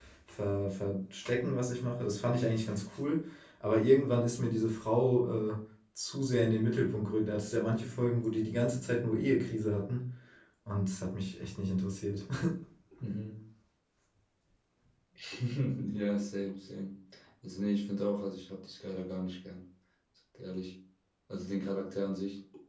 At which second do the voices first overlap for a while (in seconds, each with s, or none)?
none